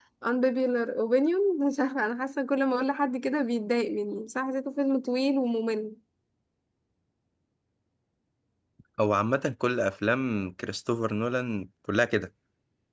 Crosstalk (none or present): none